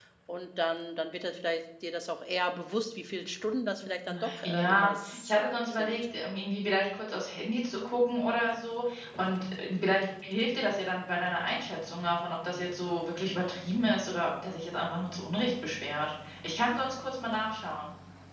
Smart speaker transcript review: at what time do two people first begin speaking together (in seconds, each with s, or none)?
4.1 s